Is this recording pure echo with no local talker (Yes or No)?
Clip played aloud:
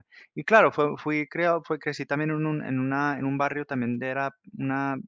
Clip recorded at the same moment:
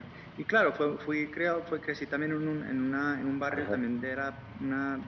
No